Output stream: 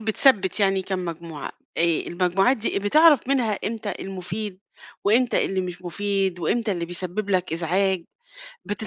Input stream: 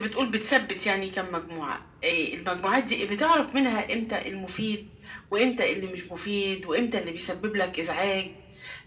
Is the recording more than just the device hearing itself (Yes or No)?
No